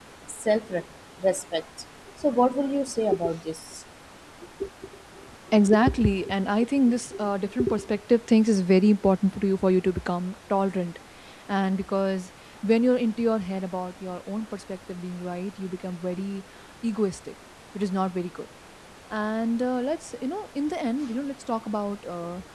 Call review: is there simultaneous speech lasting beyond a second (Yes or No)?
No